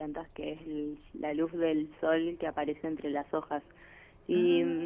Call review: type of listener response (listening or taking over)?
listening